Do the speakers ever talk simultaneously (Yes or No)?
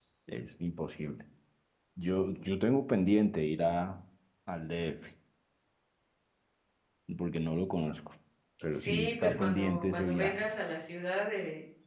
Yes